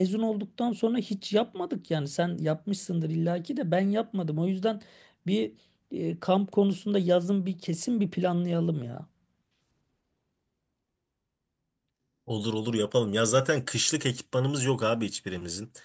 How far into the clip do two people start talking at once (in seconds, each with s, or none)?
none